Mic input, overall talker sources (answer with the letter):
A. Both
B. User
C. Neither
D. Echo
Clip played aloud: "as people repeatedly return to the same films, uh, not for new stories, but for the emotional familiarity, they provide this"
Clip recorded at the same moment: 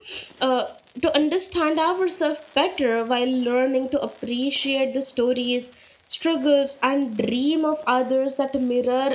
B